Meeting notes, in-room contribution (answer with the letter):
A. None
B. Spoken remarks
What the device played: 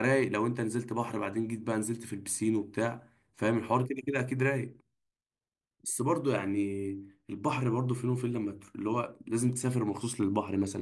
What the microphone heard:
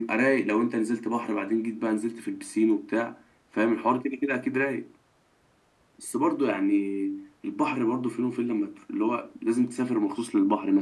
A